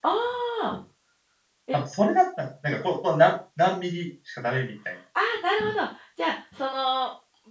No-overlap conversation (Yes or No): Yes